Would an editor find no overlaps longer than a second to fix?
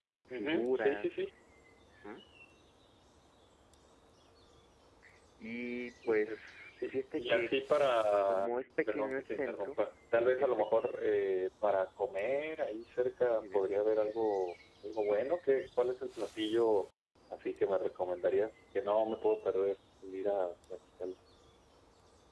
No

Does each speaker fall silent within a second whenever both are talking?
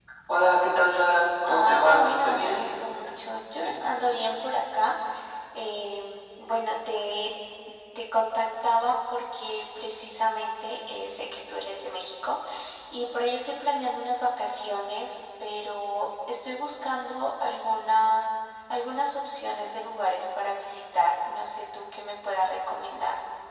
No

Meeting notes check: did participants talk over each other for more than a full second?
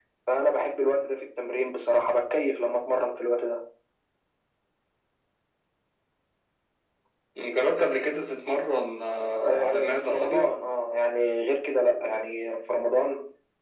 Yes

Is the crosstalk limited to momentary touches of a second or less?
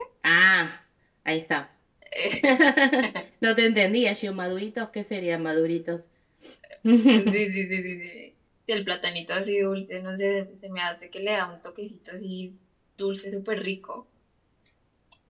Yes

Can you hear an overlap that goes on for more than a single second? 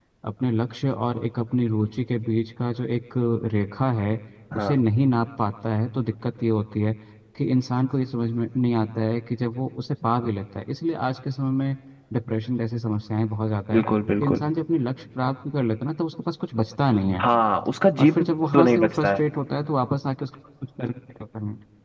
Yes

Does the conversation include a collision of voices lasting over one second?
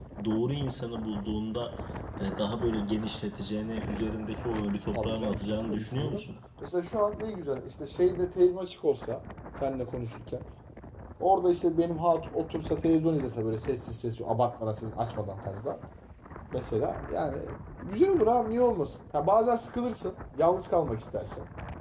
Yes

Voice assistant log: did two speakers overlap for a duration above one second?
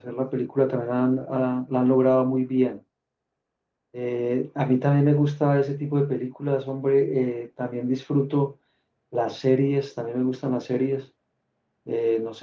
No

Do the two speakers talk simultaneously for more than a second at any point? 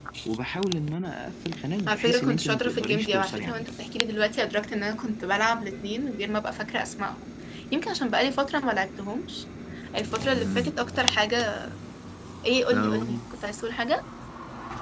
Yes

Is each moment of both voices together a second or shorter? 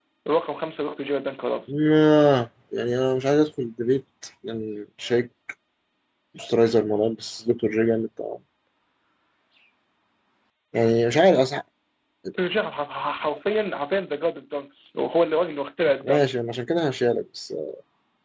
Yes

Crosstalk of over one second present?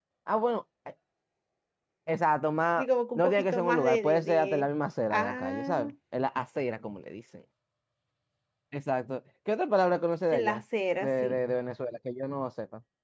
Yes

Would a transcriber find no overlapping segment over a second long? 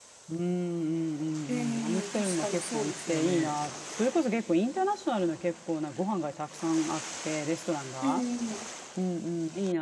No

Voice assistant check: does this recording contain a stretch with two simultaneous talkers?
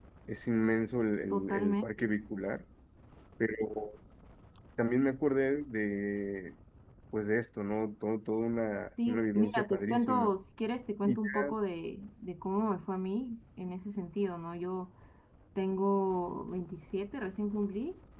Yes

